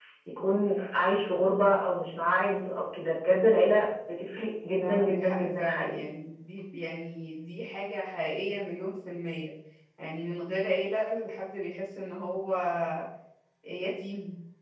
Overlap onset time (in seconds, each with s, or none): 4.8 s